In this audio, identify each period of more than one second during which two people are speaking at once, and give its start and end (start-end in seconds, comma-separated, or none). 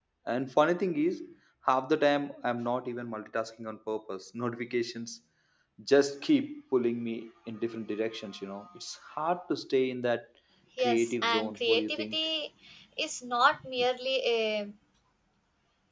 10.8-12.2